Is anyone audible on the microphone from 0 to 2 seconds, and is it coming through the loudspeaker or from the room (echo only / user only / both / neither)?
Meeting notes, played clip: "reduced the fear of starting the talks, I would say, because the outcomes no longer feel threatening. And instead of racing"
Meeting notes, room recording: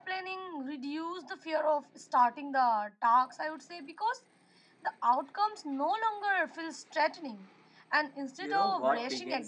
echo only